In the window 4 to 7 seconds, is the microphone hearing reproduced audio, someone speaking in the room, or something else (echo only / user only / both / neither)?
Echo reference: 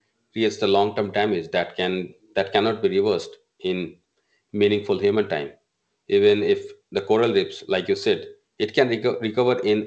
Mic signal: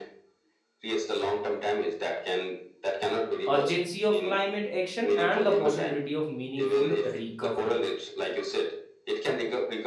both